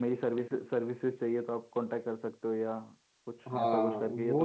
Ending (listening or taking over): taking over